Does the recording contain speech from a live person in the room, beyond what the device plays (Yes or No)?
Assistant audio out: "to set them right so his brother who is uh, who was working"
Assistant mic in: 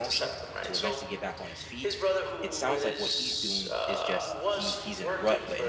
Yes